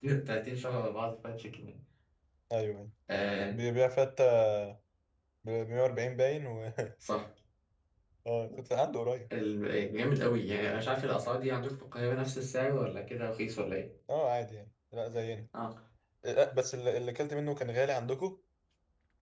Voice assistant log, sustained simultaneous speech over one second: none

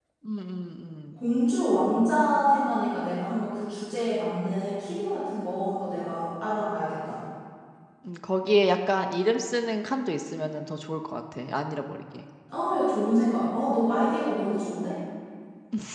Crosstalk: none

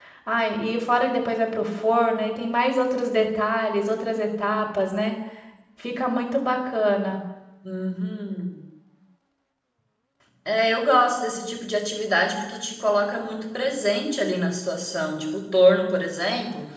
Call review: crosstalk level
none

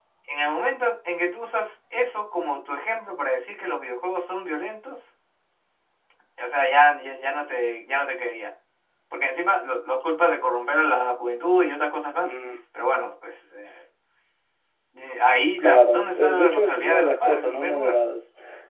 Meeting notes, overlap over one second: present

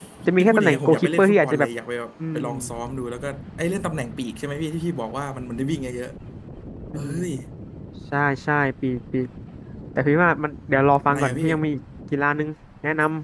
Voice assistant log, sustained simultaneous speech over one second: present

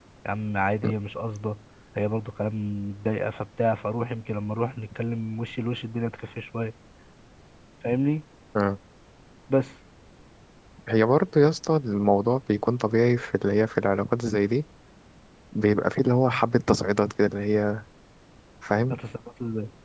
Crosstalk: none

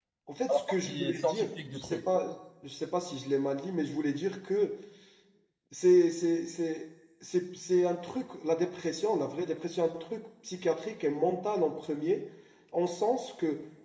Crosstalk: present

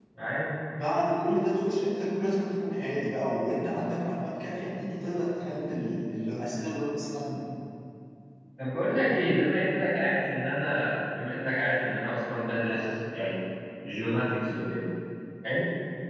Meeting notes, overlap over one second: none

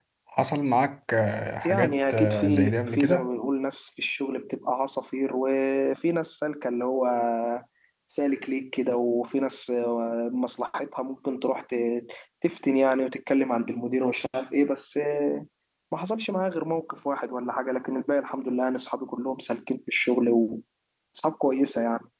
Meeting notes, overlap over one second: present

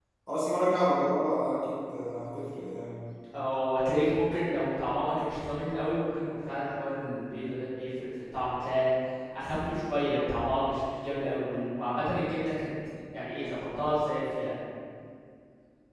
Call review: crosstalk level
none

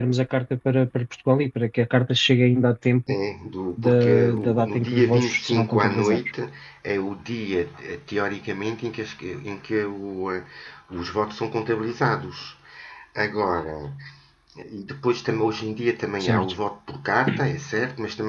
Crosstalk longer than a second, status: present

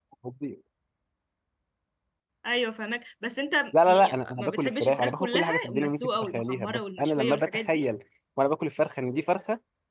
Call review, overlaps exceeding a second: present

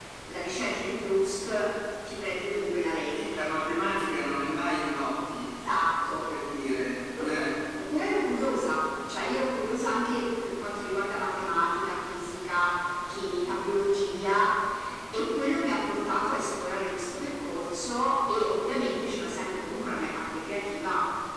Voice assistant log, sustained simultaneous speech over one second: none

